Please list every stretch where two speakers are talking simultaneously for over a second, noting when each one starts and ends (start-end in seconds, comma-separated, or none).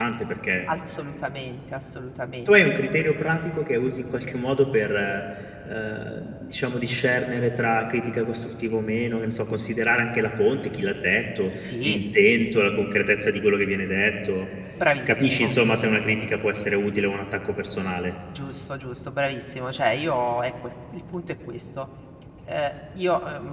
none